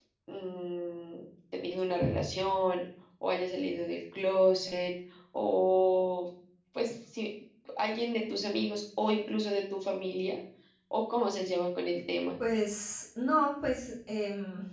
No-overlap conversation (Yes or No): Yes